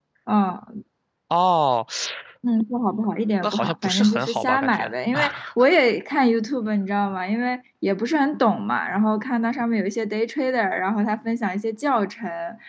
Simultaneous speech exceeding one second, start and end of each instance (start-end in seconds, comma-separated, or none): 3.4-4.9